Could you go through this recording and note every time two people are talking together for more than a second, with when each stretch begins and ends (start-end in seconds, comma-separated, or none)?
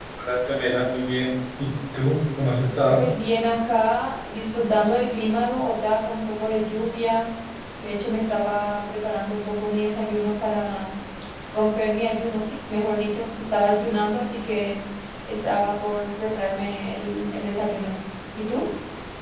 none